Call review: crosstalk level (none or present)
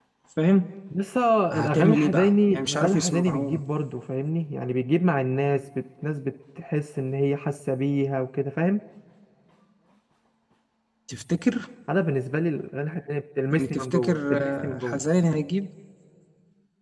present